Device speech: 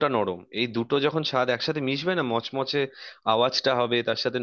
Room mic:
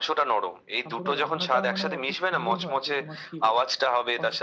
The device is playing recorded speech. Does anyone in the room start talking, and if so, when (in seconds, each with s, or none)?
0.8 s